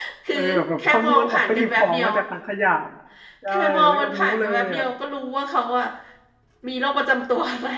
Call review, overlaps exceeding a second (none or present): present